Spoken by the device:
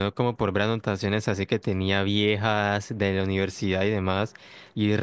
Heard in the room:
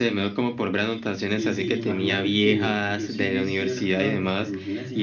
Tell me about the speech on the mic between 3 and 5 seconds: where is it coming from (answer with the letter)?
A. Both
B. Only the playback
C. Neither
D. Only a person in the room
A